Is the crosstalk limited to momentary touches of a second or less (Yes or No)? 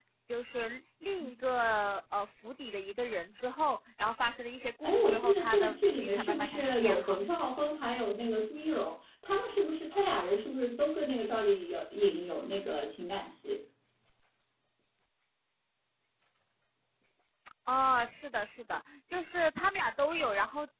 No